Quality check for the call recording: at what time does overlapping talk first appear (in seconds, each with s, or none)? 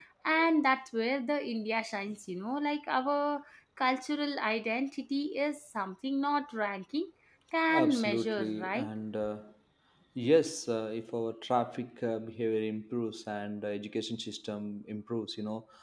7.7 s